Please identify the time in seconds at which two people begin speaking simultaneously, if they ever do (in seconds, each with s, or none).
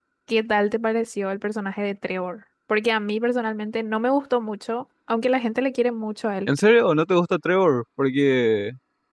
none